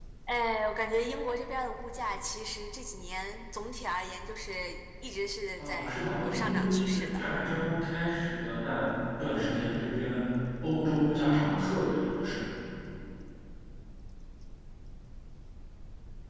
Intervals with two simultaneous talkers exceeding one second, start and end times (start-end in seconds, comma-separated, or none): 5.6-7.2